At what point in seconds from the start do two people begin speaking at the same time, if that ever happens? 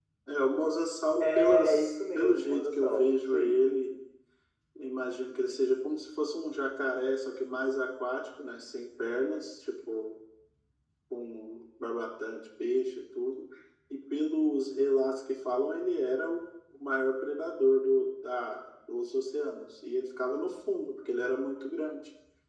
1.2 s

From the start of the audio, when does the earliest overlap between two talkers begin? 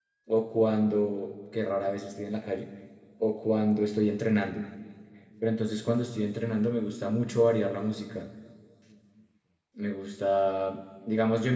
none

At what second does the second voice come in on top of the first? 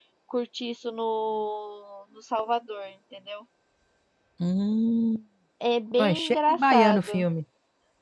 6.0 s

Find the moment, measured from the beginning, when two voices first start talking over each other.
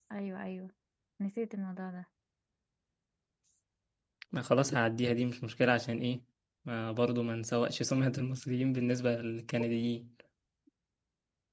none

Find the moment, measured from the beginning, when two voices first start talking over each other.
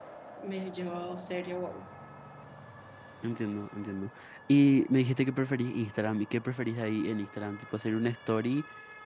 none

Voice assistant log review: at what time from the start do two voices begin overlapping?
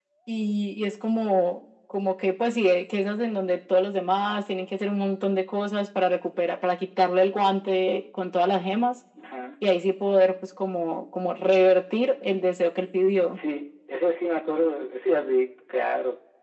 none

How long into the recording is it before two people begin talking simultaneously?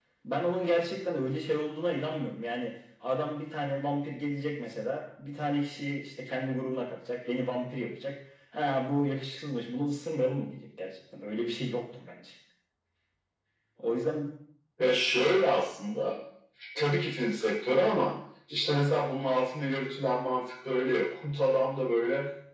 none

